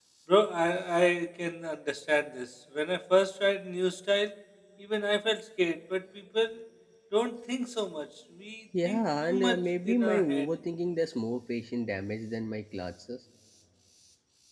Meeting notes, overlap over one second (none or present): present